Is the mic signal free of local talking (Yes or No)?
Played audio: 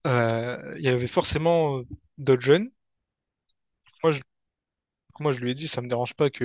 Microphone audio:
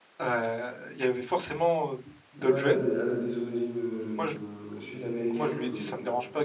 No